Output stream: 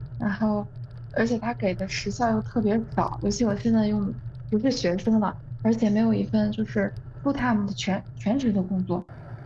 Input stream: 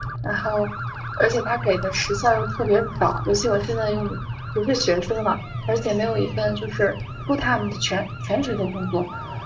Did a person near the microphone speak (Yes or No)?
No